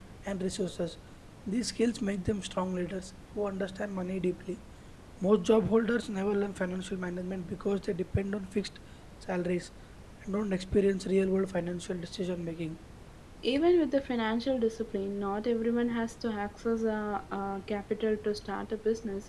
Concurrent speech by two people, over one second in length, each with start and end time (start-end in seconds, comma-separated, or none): none